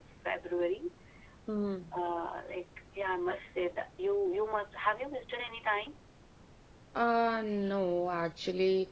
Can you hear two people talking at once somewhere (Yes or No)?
No